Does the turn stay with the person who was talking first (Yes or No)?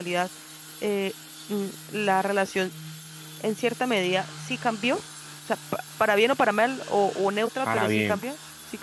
Yes